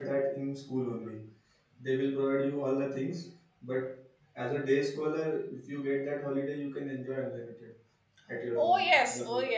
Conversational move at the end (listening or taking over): taking over